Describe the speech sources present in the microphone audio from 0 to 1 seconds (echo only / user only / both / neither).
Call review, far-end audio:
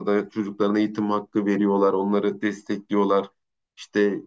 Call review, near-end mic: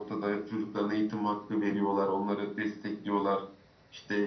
echo only